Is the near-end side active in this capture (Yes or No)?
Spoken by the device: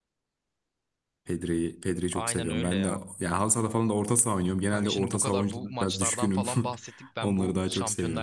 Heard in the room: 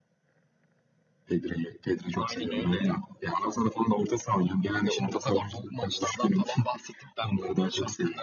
No